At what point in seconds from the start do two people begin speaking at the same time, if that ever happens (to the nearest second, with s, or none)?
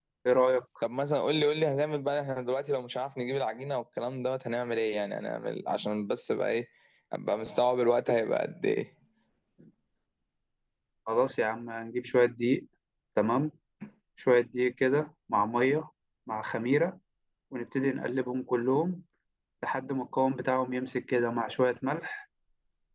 none